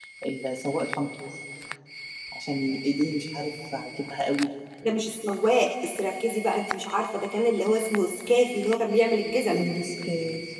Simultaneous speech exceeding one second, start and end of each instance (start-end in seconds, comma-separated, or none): none